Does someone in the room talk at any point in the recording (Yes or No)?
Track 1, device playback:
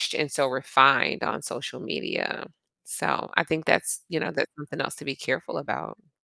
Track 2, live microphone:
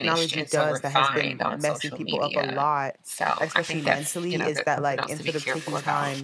Yes